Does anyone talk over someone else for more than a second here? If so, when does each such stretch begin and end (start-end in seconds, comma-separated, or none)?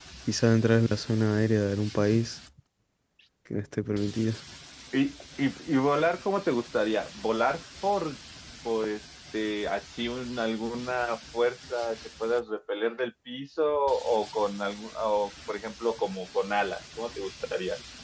none